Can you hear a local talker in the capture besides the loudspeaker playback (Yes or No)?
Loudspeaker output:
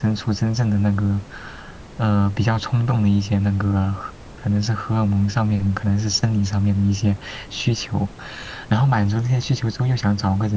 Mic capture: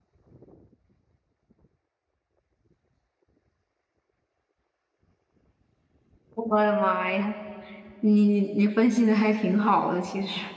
Yes